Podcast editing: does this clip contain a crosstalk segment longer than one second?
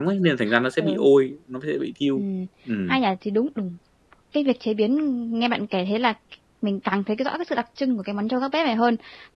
No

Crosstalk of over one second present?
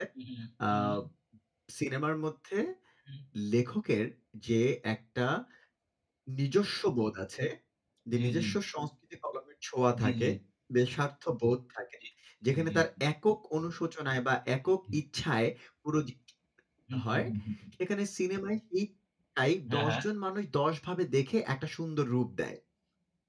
No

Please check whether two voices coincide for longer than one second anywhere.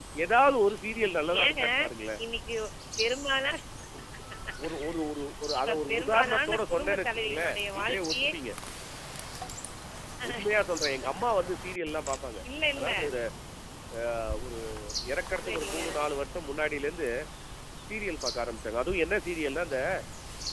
Yes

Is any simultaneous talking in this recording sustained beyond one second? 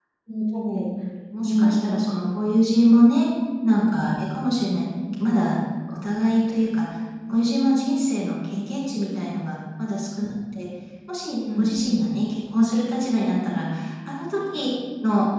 No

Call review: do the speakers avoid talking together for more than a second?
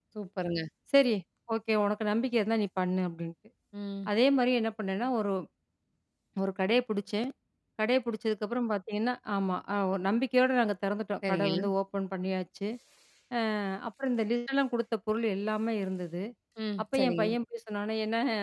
Yes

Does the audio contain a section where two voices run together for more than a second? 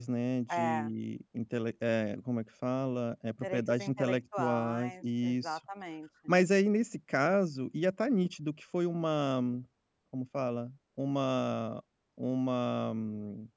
Yes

